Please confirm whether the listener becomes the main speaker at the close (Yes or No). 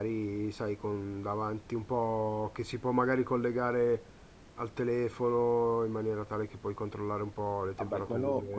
Yes